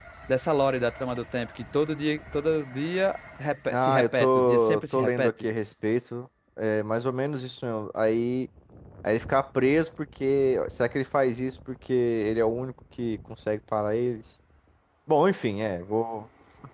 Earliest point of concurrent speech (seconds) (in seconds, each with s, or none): 3.7 s